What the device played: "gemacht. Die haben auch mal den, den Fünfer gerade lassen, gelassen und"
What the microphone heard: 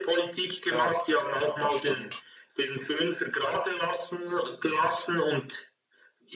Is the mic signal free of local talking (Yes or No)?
No